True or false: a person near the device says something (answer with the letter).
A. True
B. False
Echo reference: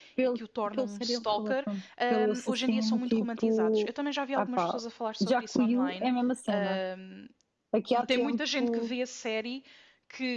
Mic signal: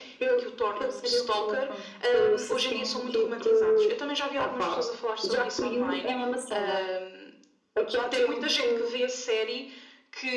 B